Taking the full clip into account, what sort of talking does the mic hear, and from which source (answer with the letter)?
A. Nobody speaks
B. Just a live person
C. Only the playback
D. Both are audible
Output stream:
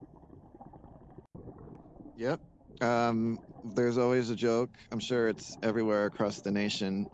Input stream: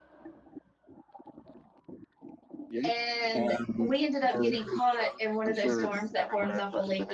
D